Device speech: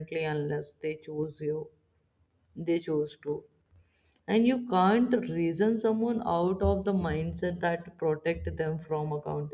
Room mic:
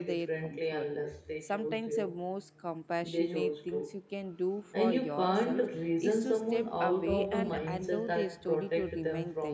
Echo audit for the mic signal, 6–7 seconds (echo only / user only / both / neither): both